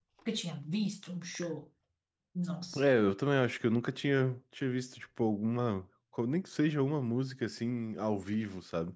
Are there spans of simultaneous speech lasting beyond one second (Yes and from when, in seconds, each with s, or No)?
No